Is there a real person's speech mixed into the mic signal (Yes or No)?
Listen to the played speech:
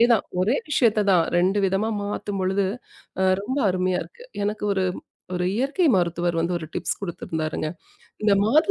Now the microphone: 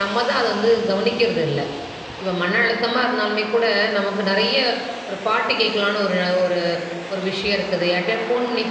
Yes